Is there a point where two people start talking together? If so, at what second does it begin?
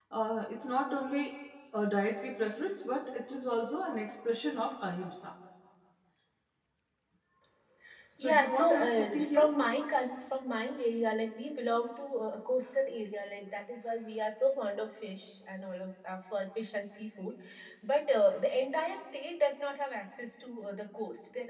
8.2 s

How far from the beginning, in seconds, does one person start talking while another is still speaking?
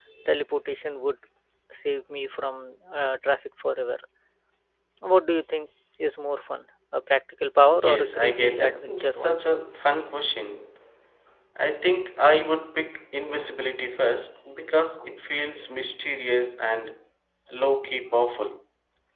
7.7 s

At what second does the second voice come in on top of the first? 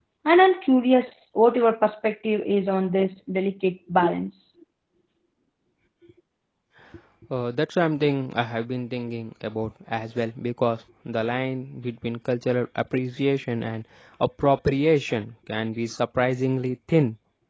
none

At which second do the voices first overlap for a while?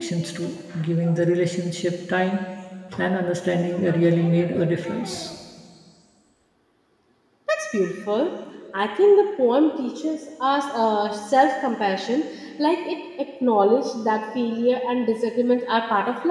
none

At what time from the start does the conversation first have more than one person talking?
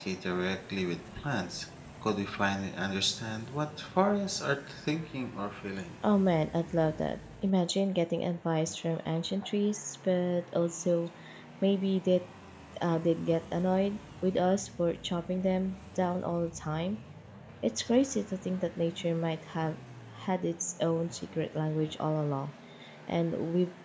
none

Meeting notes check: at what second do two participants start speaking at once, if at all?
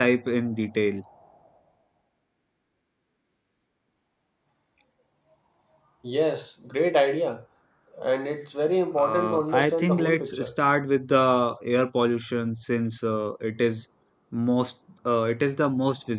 8.9 s

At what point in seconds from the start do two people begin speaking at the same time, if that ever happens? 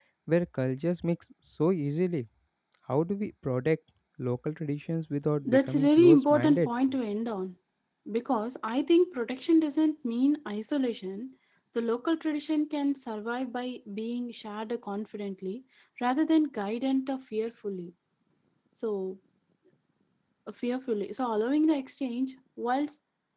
5.5 s

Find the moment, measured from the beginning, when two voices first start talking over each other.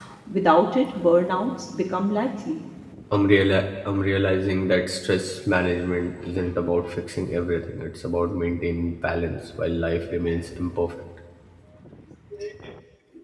none

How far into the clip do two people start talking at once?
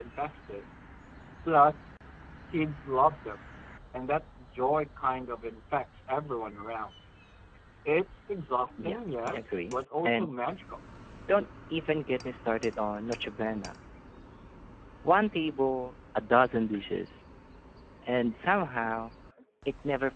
8.8 s

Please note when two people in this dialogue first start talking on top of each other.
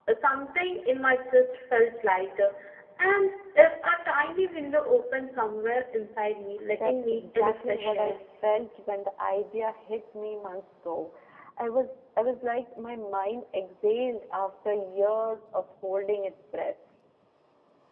6.7 s

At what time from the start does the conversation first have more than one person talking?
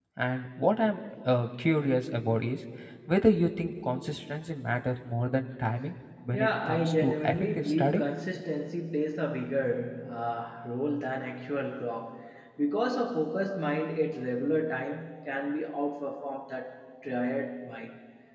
6.3 s

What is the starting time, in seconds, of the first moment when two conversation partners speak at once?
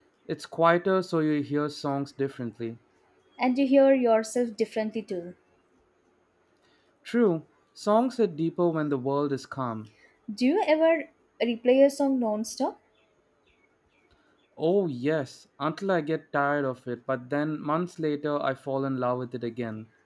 none

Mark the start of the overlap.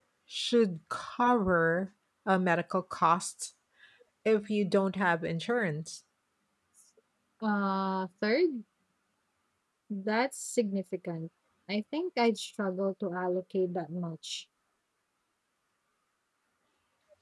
none

